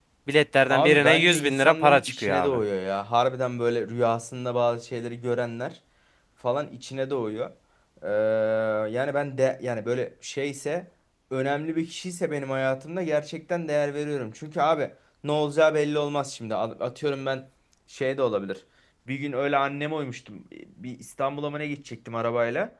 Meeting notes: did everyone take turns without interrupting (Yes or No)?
No